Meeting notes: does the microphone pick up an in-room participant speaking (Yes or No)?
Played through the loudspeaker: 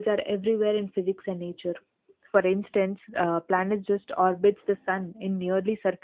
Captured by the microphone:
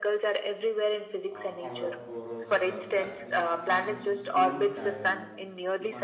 Yes